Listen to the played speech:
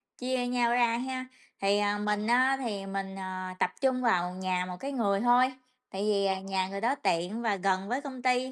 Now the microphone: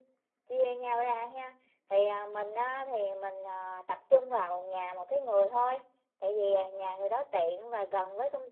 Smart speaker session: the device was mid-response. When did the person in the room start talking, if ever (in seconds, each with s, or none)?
none